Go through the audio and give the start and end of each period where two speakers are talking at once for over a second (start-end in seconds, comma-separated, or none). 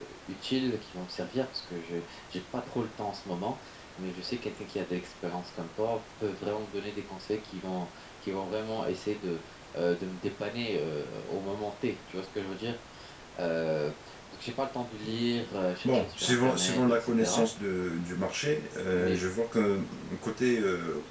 15.8-17.4